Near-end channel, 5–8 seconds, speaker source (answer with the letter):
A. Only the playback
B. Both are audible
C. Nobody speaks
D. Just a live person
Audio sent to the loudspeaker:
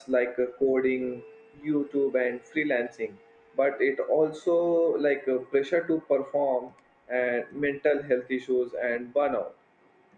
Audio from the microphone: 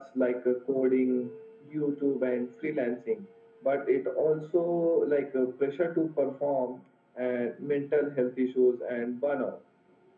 A